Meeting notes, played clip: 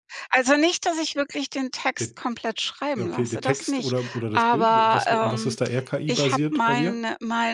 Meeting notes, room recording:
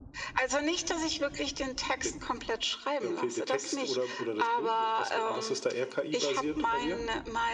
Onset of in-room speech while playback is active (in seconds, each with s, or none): none